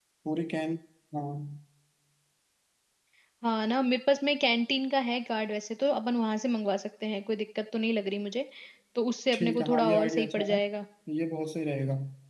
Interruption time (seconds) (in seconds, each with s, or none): 9.3 s